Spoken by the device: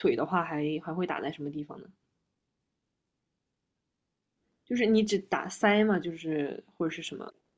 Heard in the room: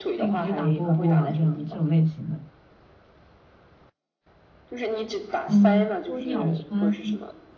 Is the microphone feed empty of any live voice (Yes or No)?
No